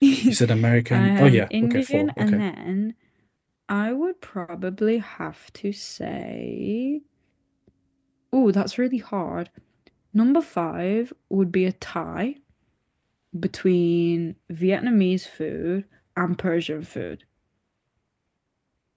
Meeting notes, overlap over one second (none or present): present